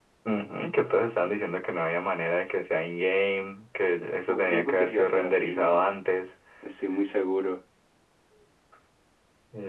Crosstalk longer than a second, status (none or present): present